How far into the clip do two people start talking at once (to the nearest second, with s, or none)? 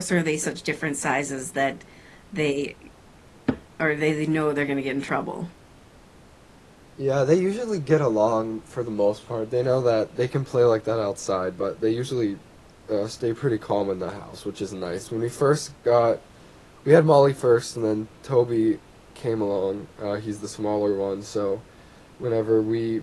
none